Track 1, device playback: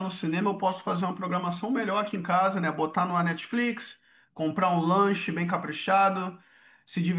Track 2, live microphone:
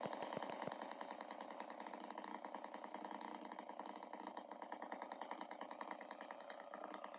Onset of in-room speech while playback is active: none

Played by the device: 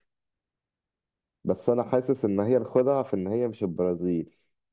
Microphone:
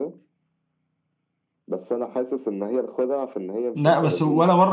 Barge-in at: 3.7 s

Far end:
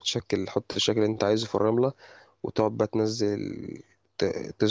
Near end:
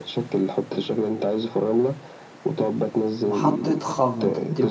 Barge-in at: 3.3 s

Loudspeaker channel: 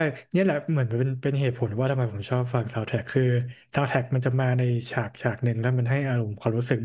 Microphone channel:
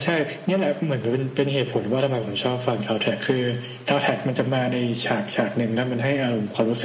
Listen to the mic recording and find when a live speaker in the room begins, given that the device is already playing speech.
none

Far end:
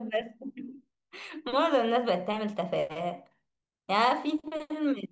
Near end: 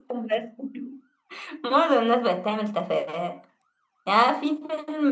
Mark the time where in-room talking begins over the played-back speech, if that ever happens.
none

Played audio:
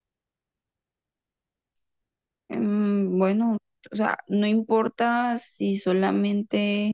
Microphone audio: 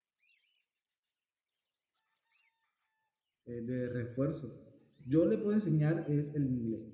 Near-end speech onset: 3.4 s

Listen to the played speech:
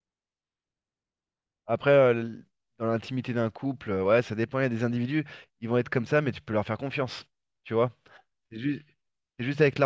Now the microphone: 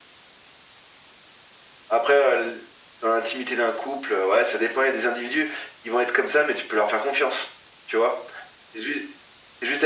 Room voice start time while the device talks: none

